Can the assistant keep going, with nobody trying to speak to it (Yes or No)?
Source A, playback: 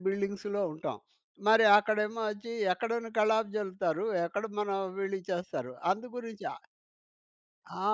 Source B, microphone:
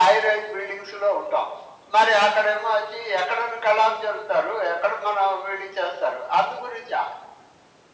Yes